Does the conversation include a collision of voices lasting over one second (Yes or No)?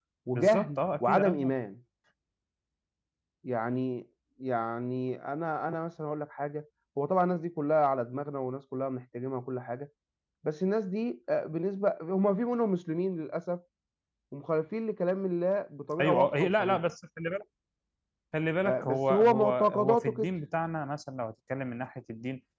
Yes